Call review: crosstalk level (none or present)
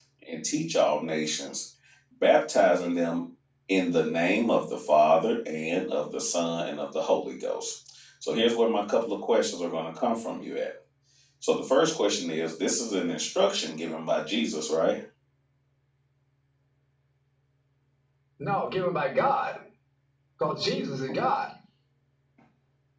none